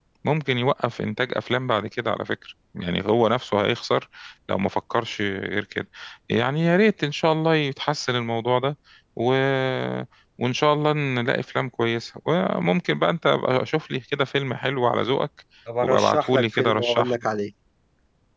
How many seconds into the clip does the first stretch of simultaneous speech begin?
15.8 s

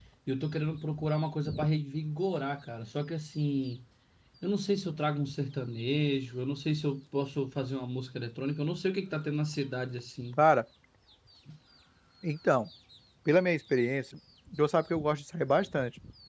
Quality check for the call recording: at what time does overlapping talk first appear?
none

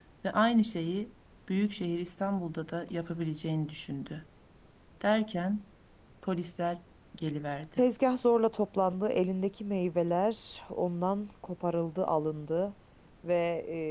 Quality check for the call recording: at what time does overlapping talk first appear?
none

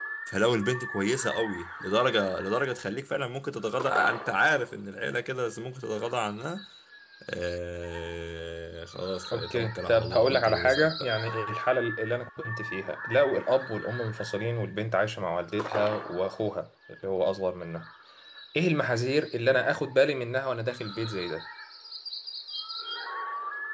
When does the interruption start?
9.3 s

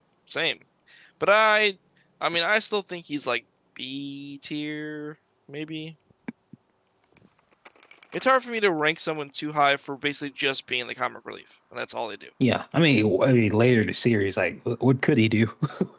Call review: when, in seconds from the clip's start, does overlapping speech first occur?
none

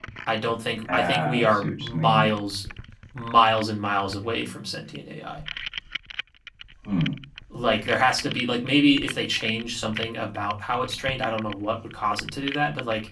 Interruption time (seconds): 0.9 s

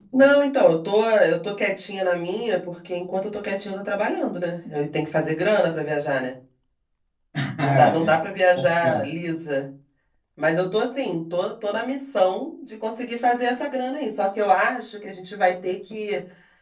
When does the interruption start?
7.6 s

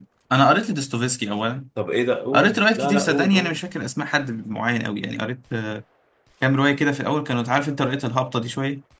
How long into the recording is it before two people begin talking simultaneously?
2.3 s

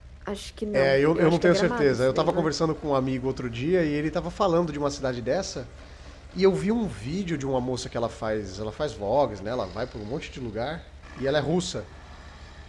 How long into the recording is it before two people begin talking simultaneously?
0.7 s

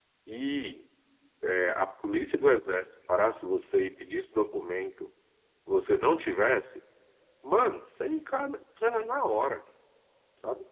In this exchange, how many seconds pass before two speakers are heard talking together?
none

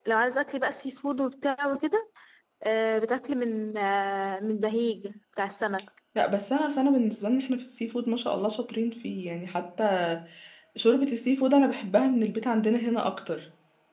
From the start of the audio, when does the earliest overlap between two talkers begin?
none

